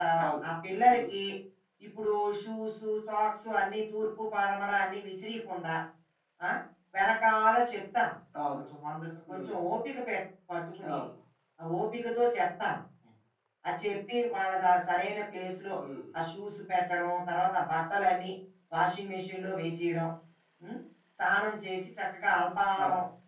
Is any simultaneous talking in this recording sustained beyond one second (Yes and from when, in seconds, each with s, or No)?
No